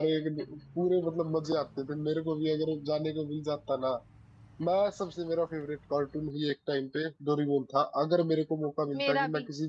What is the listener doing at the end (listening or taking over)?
listening